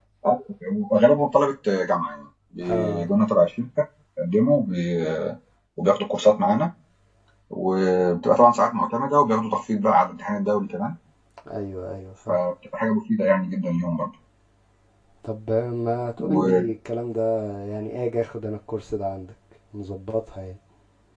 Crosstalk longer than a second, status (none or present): none